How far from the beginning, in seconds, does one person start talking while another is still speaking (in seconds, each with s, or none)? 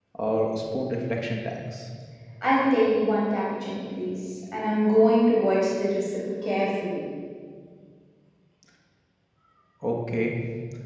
none